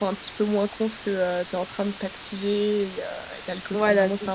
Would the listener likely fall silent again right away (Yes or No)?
No